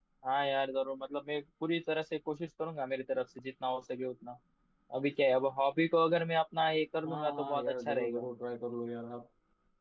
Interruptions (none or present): present